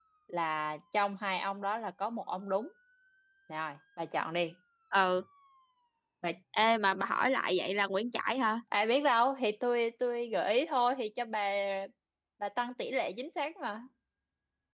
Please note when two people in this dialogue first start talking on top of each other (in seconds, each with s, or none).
none